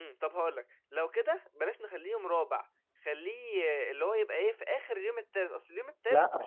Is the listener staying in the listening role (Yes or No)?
No